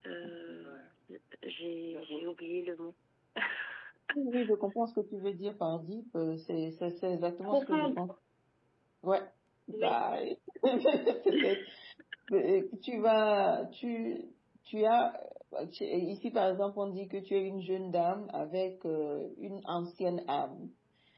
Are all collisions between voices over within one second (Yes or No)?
Yes